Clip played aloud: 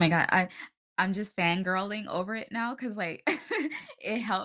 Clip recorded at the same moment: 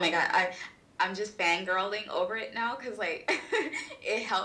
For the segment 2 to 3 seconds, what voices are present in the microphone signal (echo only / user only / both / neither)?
echo only